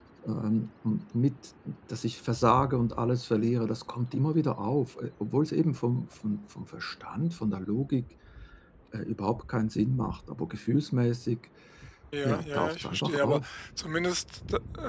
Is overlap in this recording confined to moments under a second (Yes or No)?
No